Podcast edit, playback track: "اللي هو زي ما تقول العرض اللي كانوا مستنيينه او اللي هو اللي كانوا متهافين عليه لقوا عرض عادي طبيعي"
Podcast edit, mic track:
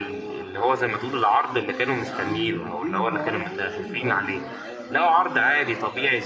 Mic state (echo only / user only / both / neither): both